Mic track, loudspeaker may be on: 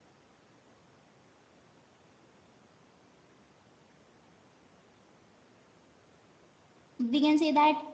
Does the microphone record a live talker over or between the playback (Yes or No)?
Yes